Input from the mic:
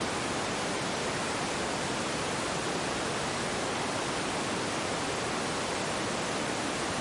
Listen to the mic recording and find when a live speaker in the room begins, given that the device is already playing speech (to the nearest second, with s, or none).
none